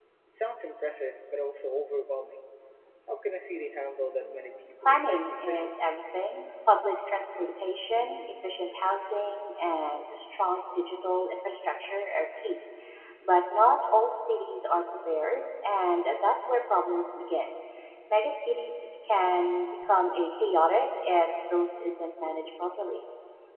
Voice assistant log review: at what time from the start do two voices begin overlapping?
4 s

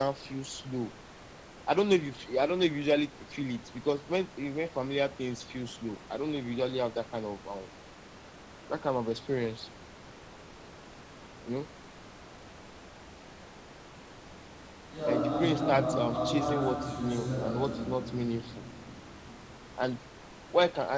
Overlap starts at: 15 s

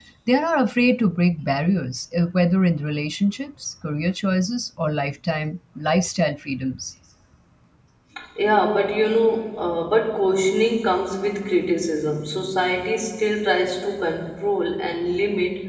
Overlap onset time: none

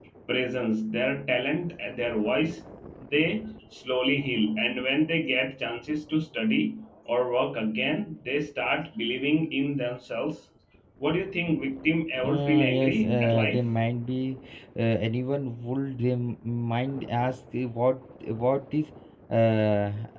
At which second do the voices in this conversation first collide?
12 s

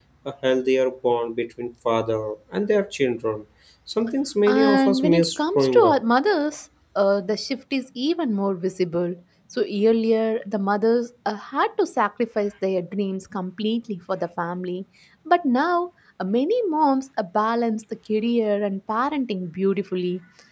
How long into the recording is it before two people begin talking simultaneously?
4 s

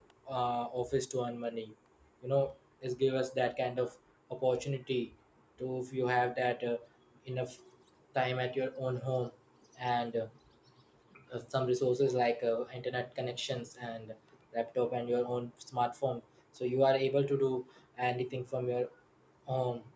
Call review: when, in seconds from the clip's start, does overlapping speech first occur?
none

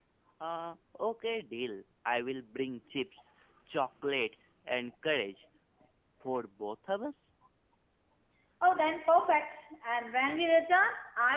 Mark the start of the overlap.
none

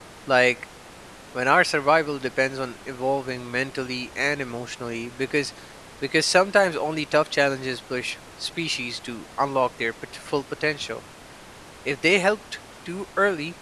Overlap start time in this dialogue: none

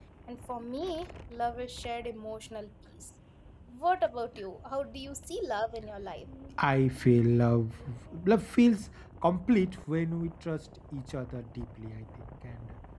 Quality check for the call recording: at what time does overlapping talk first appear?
none

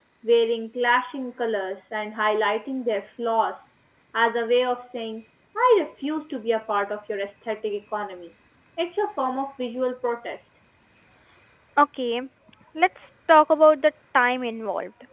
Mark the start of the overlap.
none

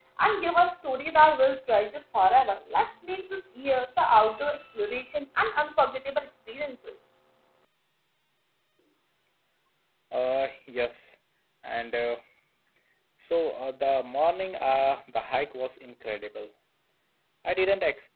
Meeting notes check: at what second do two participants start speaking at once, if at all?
none

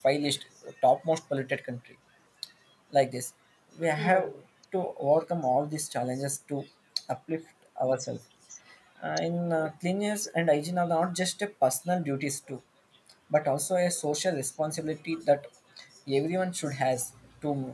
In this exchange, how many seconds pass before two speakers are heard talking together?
none

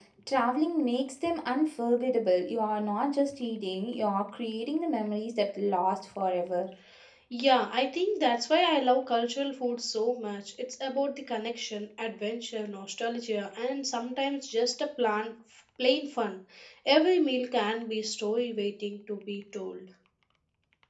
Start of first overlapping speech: none

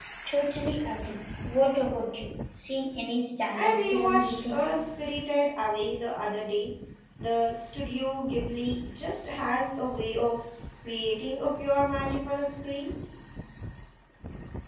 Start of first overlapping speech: 4 s

